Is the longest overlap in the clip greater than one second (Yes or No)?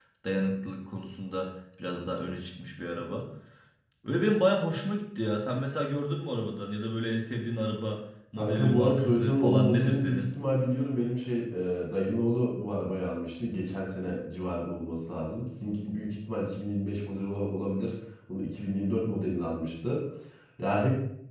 Yes